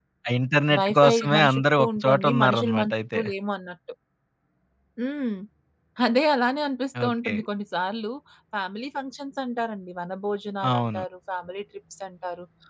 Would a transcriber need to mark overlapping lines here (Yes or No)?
Yes